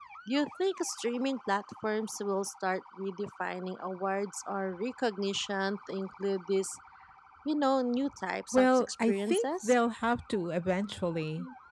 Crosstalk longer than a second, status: present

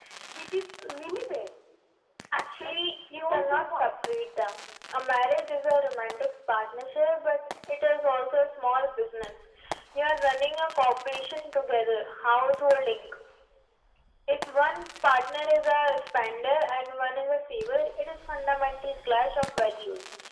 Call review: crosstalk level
present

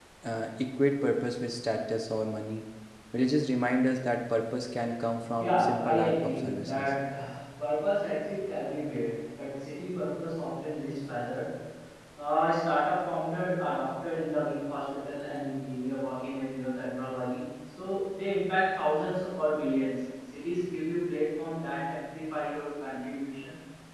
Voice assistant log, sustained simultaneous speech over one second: present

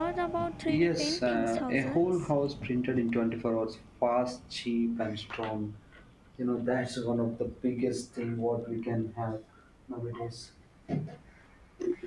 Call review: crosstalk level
present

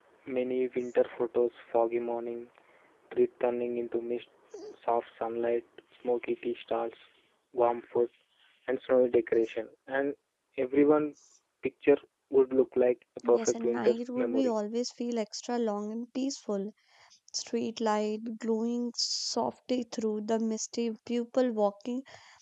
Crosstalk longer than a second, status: present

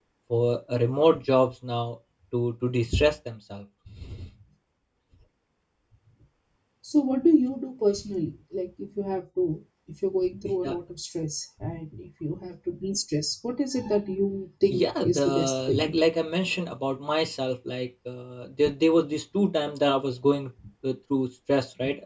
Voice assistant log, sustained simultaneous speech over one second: present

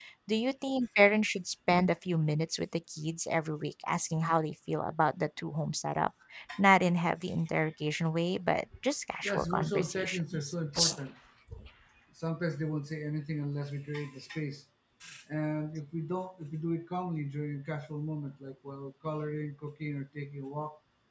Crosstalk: present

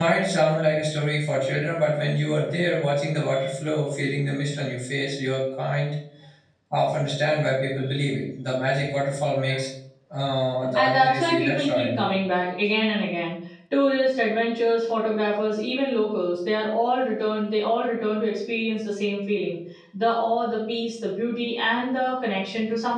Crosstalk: present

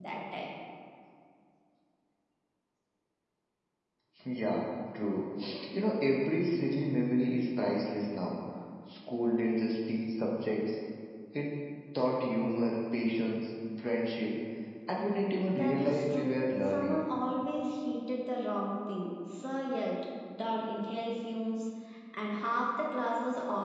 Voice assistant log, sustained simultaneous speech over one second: present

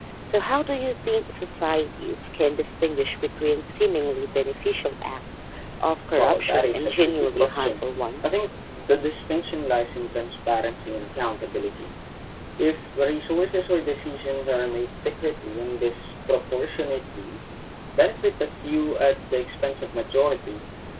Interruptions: present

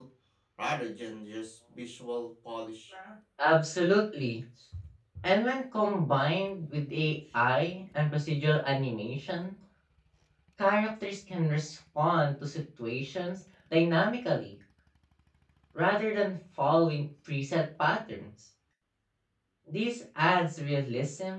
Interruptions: none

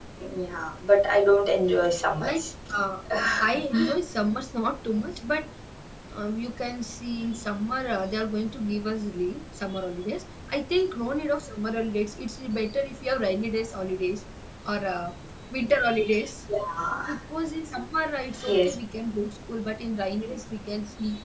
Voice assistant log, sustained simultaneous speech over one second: none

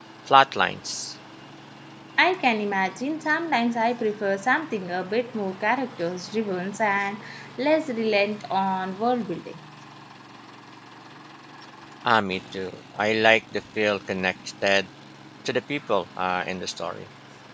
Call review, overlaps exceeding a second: none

